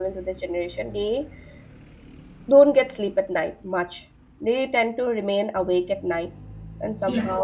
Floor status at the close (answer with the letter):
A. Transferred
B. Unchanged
A